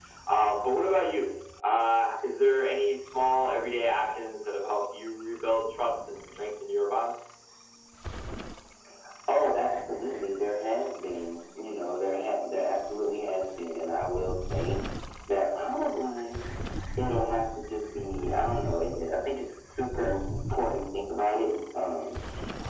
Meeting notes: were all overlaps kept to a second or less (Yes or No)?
Yes